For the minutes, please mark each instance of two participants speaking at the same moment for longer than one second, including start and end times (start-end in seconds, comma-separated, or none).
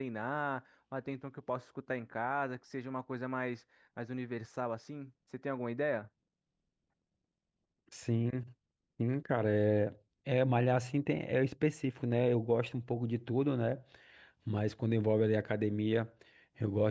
none